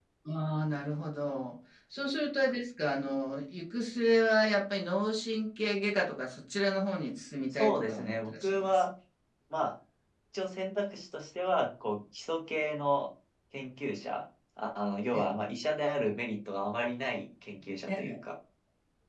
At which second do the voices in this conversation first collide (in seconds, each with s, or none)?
7.5 s